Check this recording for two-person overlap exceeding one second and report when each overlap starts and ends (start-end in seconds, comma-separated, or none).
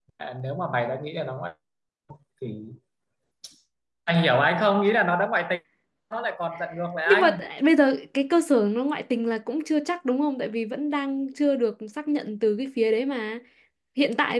none